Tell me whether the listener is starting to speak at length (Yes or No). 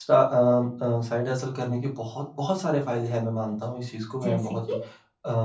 No